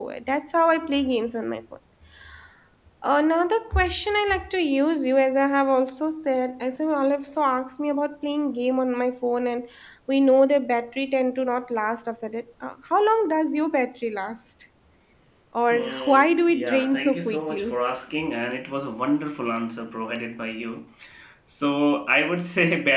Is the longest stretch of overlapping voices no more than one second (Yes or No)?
No